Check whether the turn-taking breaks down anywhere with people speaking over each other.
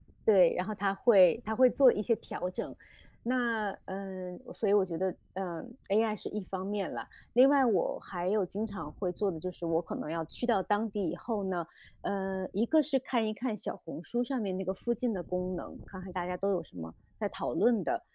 No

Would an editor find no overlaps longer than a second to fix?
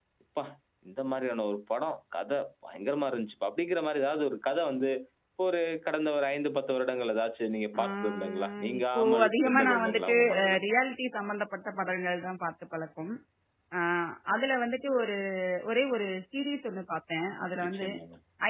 No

